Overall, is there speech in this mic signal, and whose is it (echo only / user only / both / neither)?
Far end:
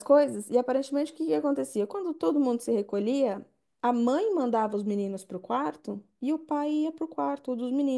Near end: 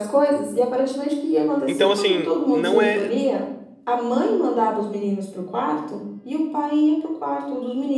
both